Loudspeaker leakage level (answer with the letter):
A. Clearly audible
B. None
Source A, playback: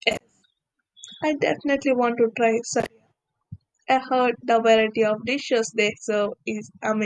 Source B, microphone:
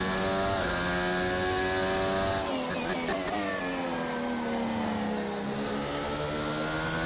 B